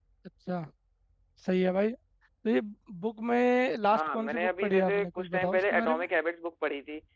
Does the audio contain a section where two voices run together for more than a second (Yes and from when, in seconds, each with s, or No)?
Yes, from 3.9 s